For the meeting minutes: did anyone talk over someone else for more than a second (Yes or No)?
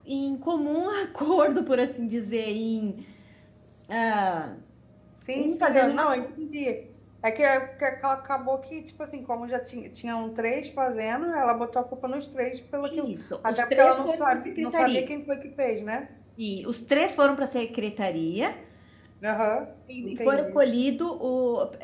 Yes